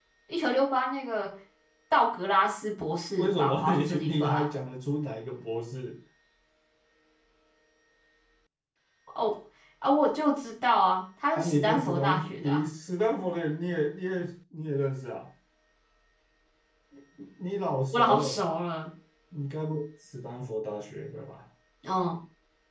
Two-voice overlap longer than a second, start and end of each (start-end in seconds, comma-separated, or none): 3.1-4.5, 11.3-12.6